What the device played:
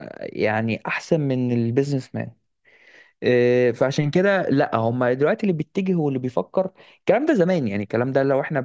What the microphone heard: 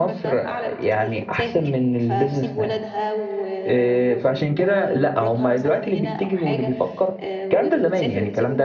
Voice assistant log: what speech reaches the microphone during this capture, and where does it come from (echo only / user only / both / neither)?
both